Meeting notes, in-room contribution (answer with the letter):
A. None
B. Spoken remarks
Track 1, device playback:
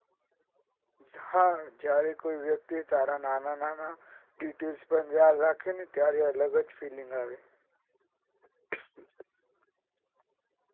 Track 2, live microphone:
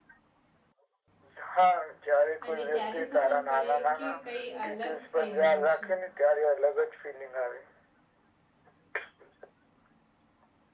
B